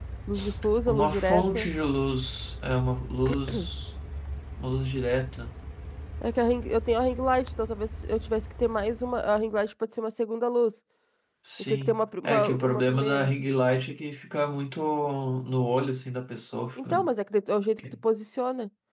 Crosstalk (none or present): present